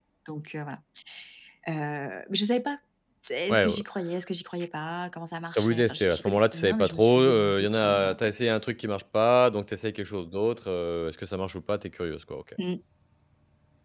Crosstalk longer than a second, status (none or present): present